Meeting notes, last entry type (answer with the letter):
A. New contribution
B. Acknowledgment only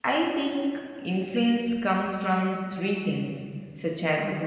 B